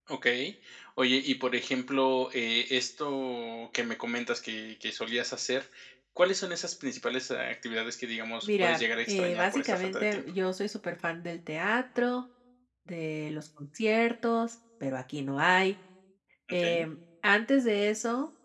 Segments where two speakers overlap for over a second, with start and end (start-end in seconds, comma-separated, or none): 8.4-10.2